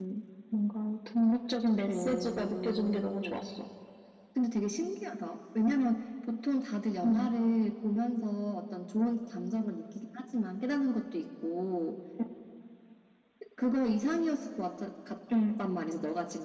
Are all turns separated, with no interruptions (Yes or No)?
No